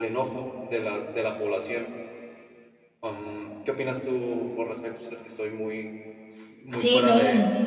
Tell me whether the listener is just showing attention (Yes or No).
No